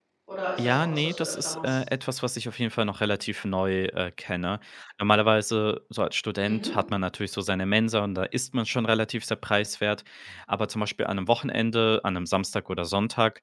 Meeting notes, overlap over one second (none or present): present